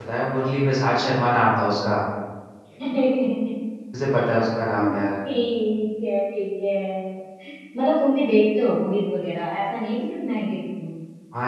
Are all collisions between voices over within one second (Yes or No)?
Yes